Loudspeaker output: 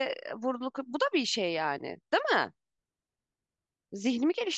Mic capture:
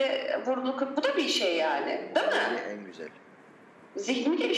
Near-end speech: present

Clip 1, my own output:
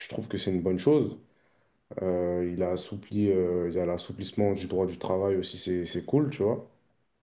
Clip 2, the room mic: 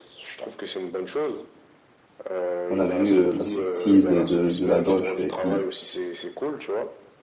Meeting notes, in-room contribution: present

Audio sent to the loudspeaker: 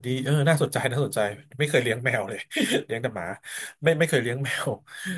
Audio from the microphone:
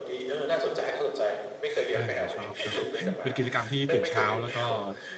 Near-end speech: present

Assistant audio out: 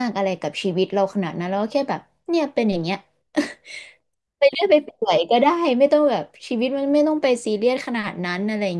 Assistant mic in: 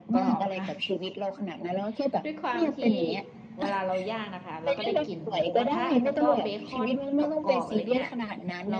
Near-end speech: present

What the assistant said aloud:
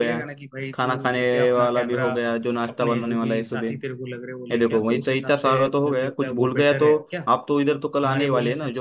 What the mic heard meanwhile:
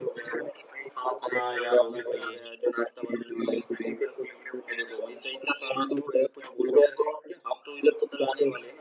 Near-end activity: present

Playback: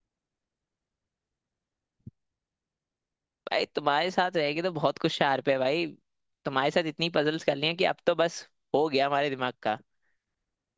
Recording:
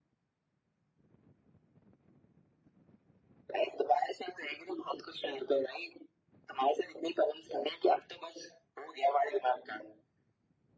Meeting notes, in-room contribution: none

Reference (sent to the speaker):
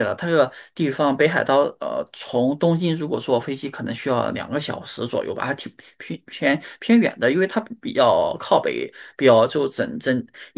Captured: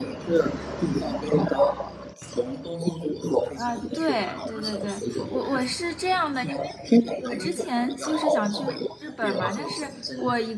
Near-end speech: present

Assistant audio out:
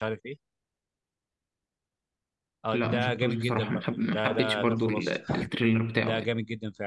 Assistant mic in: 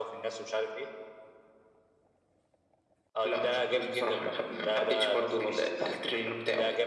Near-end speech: none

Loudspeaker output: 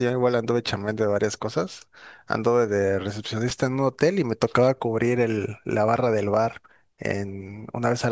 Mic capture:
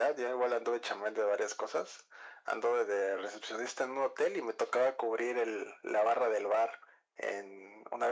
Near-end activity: none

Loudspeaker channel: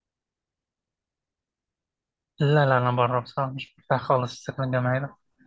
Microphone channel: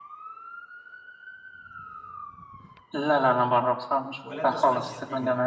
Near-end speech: present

